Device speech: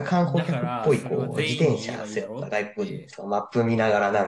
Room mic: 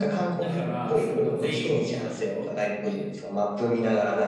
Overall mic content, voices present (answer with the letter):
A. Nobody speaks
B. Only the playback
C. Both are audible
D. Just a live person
B